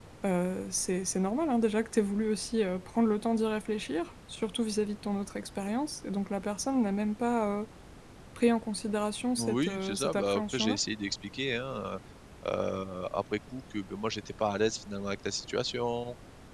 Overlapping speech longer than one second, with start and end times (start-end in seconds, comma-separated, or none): 9.4-10.8